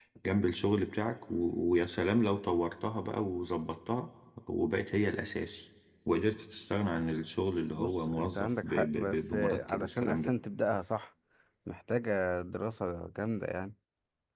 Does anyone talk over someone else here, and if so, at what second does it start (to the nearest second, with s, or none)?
8 s